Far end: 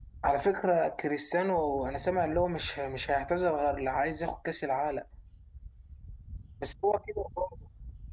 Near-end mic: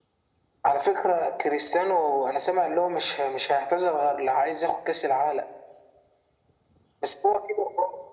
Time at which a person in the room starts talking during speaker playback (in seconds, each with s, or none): none